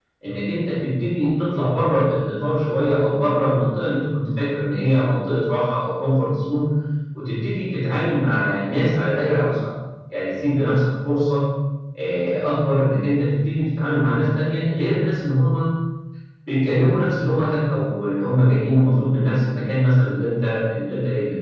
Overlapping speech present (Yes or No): No